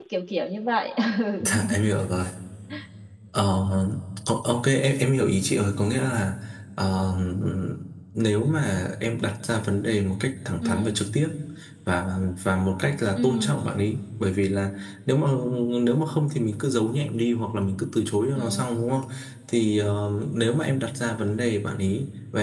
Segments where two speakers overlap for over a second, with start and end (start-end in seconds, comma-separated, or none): none